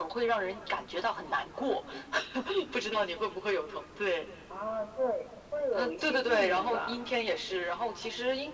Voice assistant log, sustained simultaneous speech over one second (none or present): present